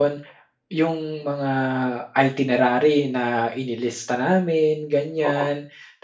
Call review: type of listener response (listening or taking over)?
listening